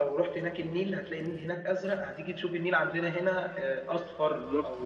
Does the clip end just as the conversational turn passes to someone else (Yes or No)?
No